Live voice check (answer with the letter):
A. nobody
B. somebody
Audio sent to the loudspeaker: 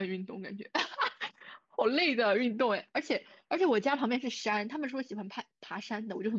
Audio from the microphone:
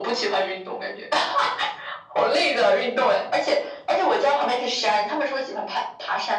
A